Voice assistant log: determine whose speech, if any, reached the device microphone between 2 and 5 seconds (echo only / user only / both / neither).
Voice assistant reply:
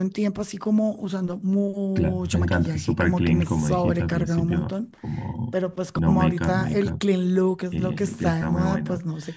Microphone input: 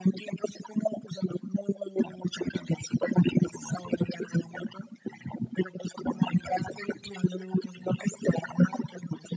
echo only